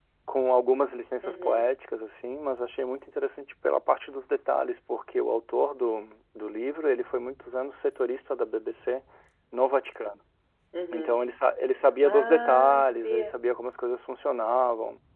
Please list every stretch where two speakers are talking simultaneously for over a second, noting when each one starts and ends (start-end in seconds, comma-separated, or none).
12.0-13.4